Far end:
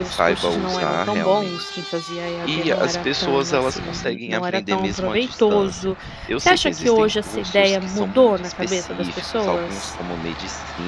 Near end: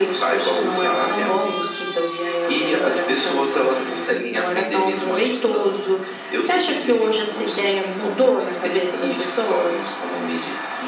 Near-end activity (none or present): none